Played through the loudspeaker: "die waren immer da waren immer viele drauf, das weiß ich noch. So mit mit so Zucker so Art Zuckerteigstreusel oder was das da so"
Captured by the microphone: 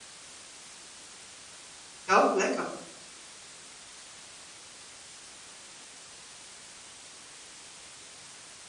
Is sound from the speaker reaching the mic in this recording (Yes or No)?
No